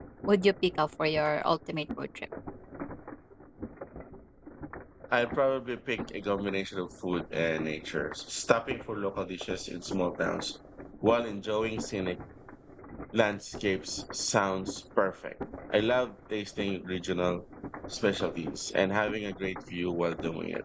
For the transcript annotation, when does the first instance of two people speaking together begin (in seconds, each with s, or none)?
none